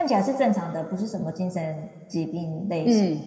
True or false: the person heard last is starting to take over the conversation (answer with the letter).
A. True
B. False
A